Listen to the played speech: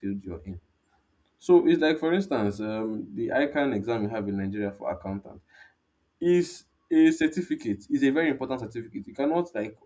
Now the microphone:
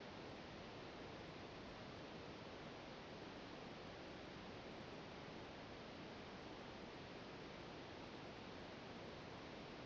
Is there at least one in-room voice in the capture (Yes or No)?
No